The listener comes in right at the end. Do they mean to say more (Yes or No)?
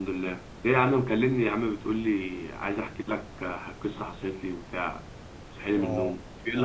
Yes